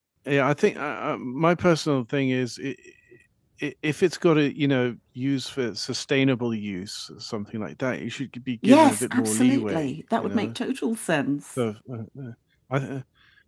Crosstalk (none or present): present